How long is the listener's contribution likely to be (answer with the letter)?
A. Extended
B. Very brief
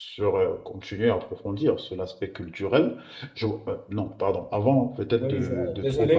A